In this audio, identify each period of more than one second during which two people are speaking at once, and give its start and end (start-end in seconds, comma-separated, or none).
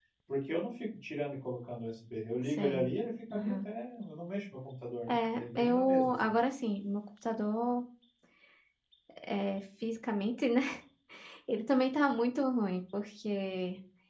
5.1-6.3